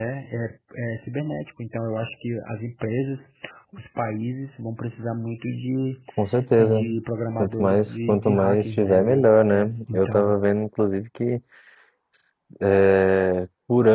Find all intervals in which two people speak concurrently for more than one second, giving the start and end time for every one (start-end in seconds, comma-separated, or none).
7.4-10.3